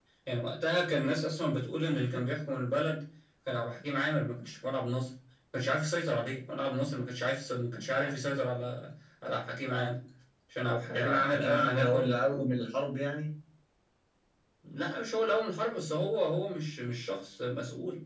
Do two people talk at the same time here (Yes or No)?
Yes